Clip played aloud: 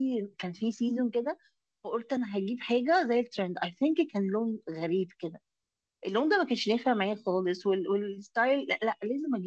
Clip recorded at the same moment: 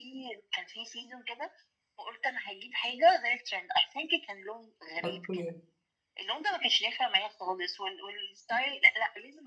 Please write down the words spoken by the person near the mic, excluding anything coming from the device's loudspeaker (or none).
اوكي